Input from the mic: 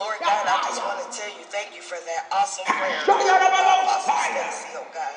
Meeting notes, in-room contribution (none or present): present